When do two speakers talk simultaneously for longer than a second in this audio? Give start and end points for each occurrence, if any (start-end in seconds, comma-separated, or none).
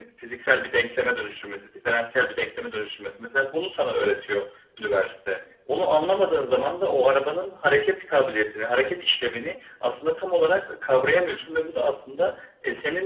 none